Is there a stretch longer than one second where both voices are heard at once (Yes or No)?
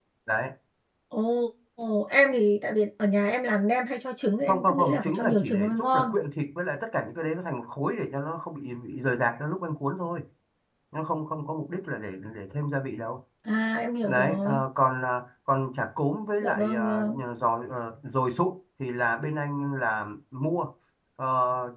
Yes